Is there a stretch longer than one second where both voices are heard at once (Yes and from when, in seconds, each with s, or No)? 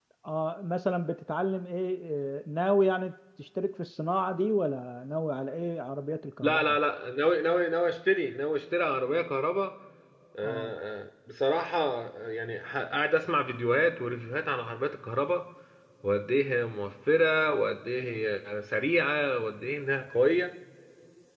No